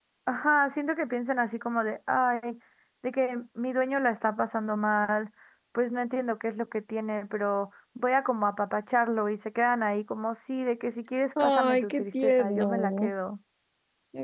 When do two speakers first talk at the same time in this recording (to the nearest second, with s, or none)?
11 s